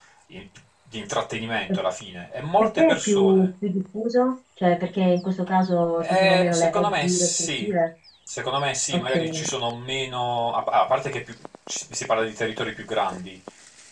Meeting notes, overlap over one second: present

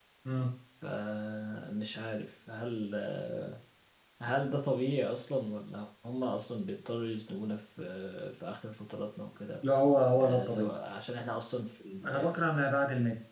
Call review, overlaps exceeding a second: none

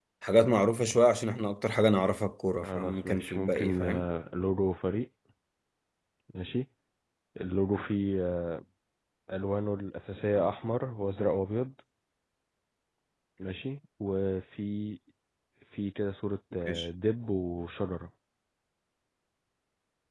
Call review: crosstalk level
present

